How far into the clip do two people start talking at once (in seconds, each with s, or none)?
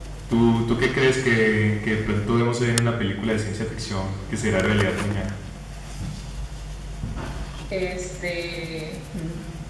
none